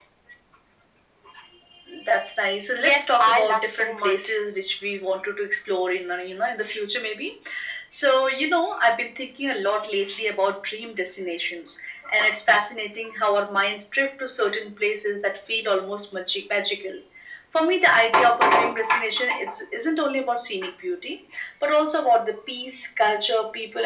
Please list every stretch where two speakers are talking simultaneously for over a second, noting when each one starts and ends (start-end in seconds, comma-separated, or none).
2.8-4.3